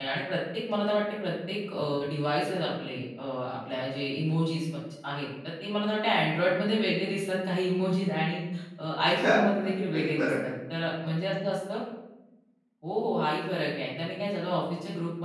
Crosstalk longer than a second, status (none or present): present